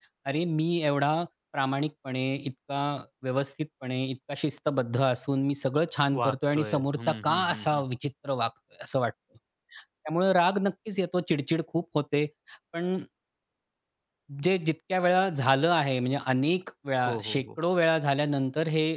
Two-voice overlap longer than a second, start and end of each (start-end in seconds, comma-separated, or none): 6.2-7.8